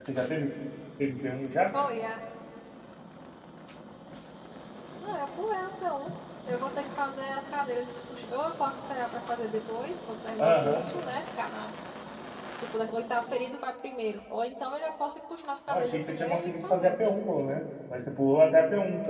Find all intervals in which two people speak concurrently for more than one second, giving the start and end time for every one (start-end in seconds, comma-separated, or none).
15.7-17.0